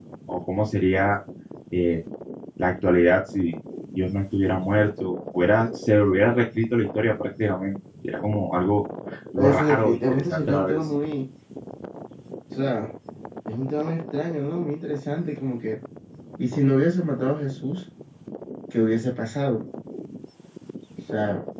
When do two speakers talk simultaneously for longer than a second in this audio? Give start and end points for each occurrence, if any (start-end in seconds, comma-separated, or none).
9.4-10.8